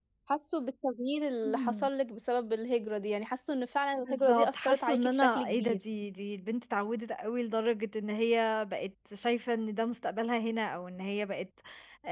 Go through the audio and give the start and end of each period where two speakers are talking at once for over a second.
4.1-5.8

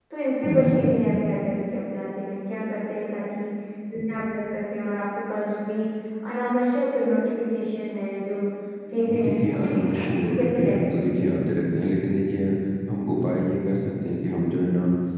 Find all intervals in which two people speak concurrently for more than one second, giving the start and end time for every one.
9.1-11.4

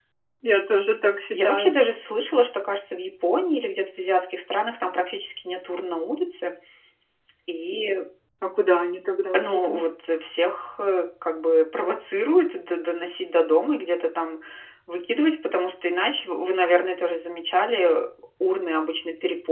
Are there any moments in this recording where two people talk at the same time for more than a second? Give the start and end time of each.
none

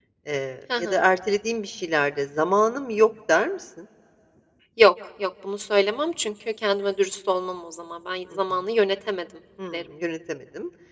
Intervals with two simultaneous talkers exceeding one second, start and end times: none

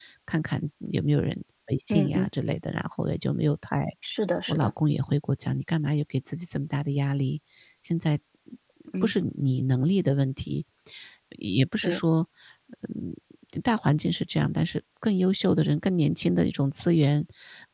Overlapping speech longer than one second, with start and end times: none

